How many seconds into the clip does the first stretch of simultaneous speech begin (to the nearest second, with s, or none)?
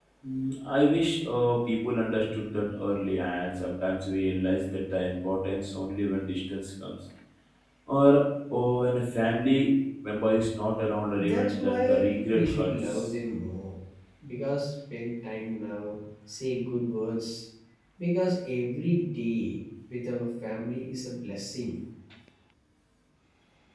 11 s